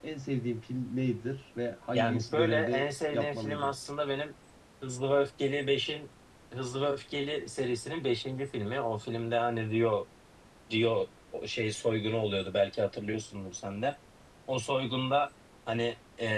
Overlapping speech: Yes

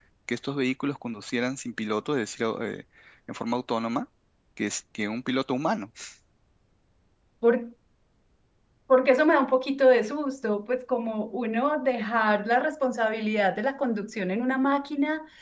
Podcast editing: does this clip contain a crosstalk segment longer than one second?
No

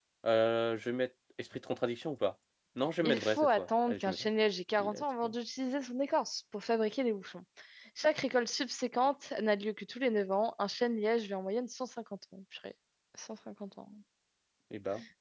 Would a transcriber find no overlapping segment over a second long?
No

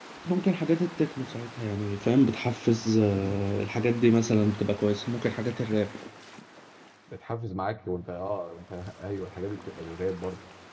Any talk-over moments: No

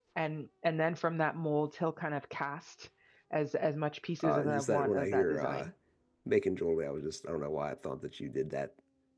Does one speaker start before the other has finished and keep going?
Yes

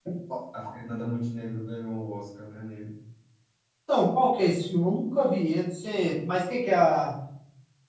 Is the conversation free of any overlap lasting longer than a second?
Yes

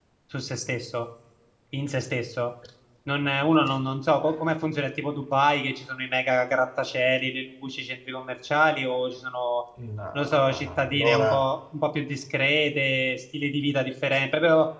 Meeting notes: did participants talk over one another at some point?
Yes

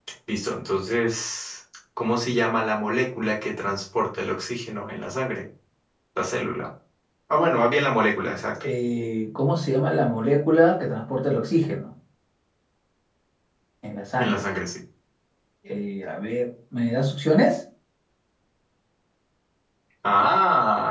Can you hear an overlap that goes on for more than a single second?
No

